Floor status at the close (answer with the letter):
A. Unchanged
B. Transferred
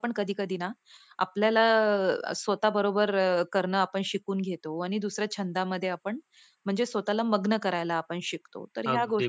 B